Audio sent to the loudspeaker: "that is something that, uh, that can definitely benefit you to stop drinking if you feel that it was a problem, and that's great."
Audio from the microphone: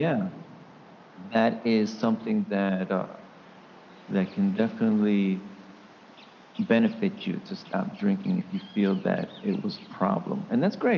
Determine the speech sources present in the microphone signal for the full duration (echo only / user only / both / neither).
echo only